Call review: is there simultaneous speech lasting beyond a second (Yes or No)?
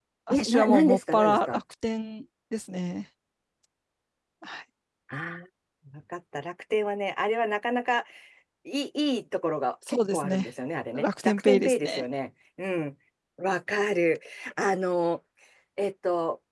Yes